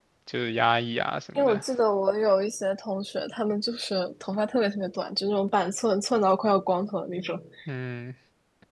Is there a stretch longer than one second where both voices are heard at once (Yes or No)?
No